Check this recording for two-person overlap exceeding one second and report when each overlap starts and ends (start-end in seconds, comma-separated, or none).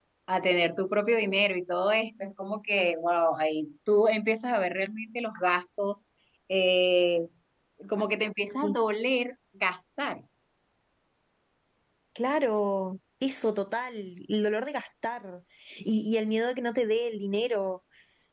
none